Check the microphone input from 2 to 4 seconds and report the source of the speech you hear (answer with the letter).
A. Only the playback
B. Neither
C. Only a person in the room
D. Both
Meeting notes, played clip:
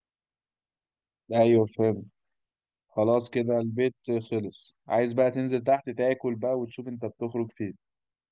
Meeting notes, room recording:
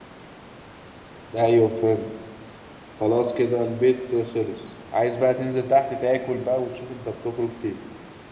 A